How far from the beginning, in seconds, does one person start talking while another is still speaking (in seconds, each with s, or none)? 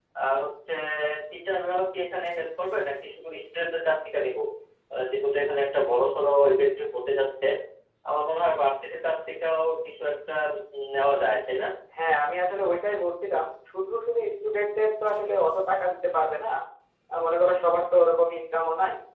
none